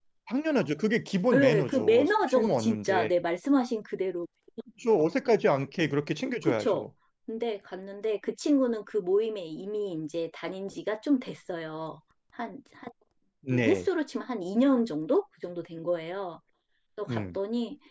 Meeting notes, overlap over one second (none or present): present